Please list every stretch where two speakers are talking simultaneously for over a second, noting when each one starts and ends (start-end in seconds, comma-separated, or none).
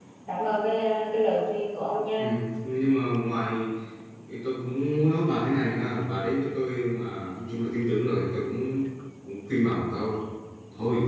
none